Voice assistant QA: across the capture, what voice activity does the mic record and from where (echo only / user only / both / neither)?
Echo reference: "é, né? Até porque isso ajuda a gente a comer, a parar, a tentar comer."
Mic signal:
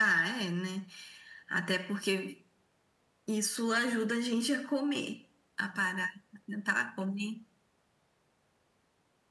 echo only